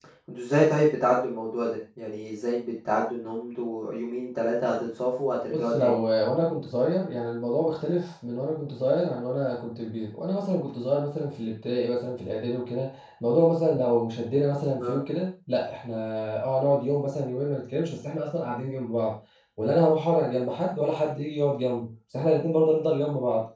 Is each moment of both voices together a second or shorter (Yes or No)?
Yes